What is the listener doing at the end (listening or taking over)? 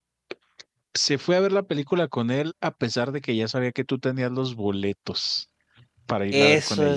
taking over